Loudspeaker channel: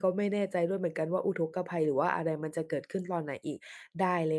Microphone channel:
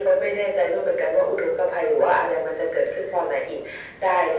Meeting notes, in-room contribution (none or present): none